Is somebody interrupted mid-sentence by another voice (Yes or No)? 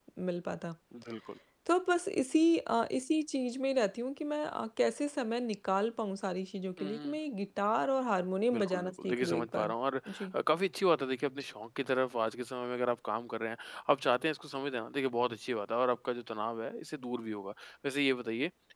Yes